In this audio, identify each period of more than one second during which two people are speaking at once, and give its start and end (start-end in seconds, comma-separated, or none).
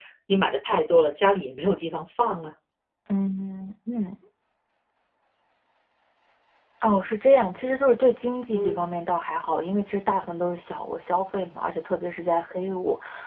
none